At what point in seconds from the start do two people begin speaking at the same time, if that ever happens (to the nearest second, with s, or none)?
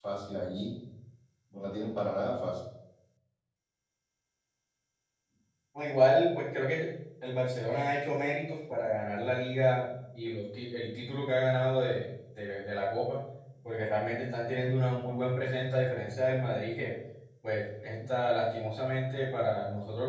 none